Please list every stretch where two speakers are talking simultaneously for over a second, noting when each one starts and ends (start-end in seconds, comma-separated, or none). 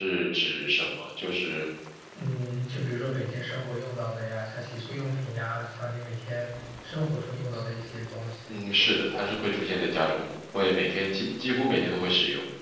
none